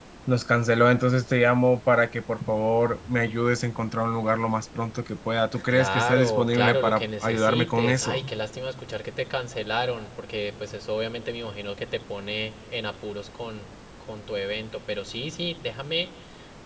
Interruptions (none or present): present